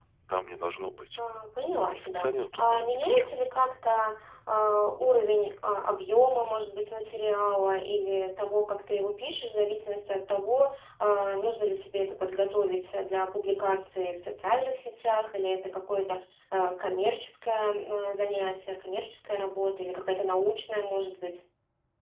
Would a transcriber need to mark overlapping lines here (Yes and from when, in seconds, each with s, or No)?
Yes, from 1.9 s